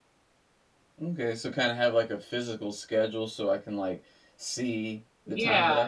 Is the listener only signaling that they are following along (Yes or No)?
No